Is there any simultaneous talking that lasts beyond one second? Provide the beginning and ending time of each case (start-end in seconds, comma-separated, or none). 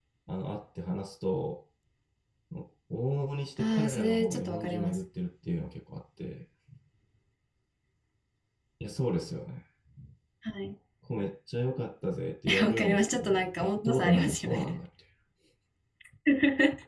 3.6-5.0, 12.6-14.7